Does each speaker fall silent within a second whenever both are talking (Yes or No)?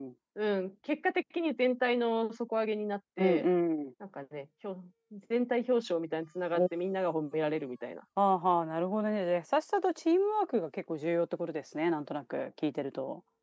Yes